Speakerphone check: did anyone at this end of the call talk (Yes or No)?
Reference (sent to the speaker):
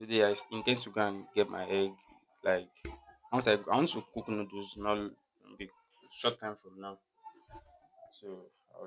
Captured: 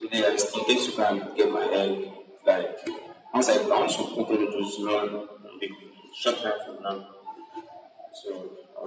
No